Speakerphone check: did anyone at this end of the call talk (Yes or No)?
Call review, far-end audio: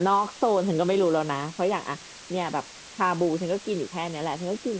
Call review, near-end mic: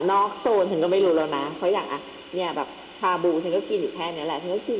No